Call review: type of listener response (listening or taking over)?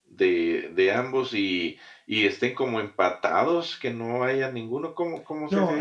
taking over